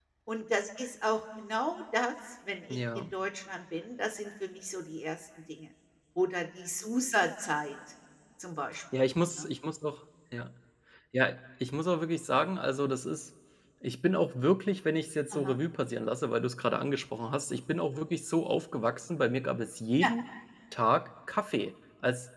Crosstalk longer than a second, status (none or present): none